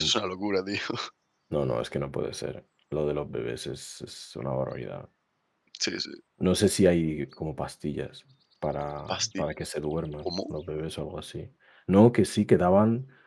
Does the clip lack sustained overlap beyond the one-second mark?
Yes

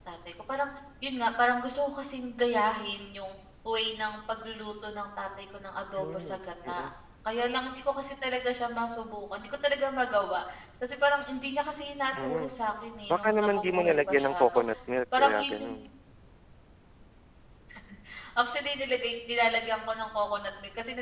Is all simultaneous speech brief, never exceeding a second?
No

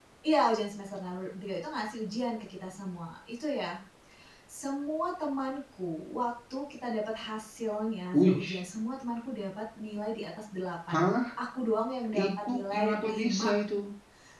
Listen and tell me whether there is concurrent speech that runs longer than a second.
Yes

